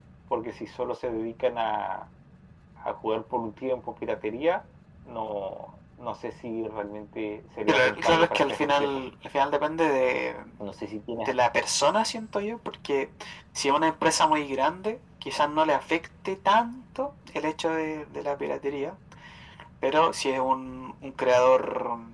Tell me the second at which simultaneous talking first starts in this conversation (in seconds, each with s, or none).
7.7 s